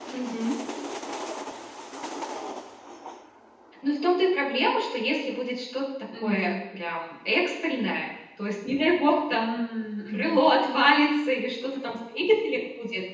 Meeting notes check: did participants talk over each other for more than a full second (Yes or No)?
No